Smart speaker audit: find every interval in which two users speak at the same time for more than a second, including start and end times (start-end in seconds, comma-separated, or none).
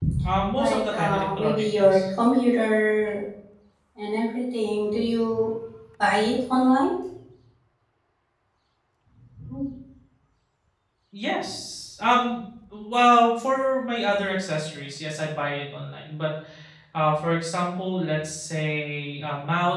0.5-2.0